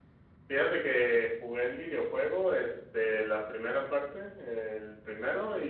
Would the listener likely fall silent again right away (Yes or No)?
Yes